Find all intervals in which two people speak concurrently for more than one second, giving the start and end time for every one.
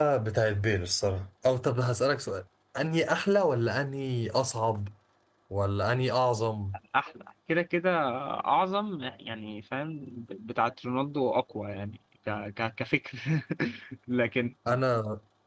none

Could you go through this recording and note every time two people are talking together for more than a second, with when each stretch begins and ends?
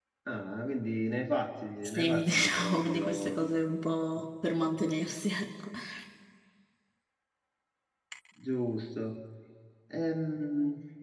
1.8-3.5

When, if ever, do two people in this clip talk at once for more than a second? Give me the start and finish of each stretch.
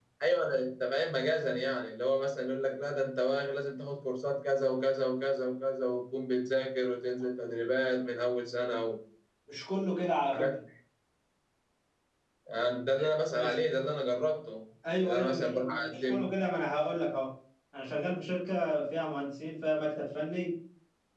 15.0-16.3

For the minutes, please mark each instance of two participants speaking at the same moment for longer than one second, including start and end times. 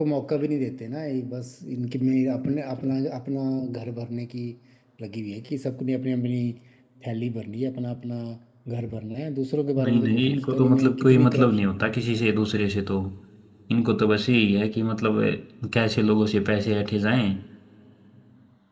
9.8-11.9

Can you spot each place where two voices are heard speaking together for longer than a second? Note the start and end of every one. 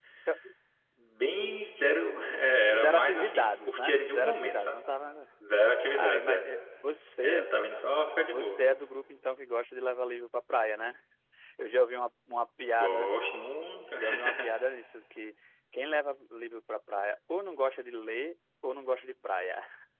2.8-4.7

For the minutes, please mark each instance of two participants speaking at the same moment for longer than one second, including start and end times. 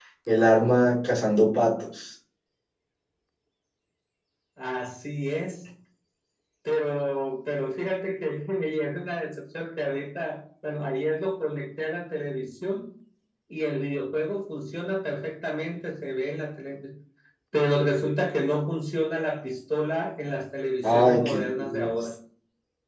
20.8-22.1

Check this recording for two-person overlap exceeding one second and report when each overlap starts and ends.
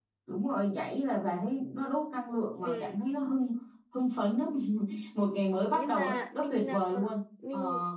5.7-7.1

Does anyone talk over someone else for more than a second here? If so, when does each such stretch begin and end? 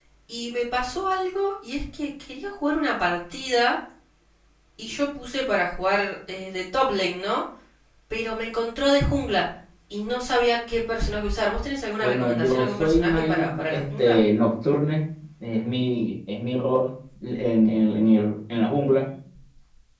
12.0-14.2

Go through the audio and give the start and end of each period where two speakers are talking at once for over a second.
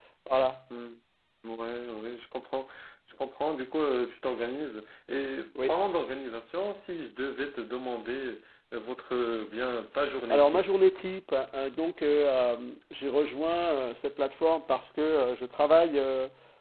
none

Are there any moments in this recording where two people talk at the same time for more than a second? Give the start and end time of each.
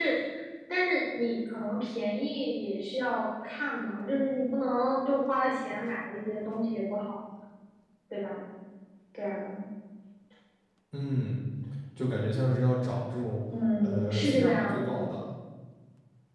13.8-15.0

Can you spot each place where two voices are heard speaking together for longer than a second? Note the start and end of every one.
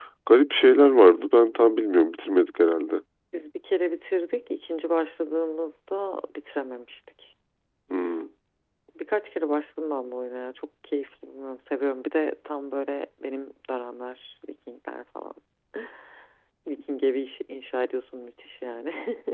none

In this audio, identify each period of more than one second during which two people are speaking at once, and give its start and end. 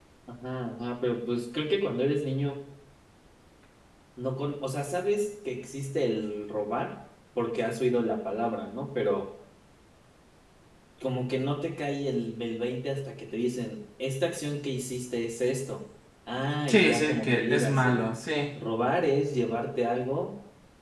16.7-18.1

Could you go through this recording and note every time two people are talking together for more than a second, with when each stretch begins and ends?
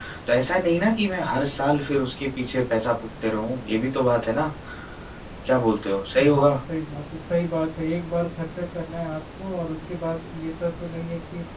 none

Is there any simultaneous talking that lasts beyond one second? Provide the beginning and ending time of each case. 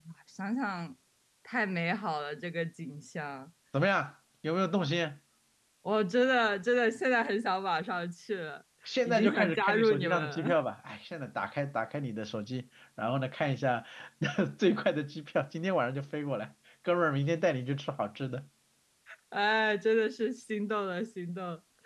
9.0-10.6

